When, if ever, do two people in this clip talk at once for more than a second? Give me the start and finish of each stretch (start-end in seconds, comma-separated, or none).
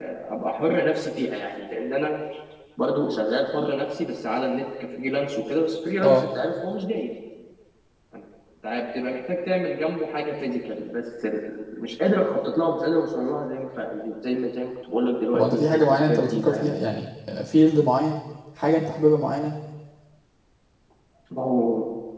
15.3-16.7